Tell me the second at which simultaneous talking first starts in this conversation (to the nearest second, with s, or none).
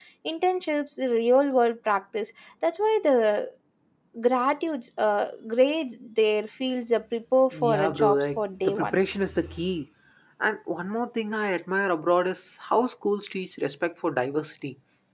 8 s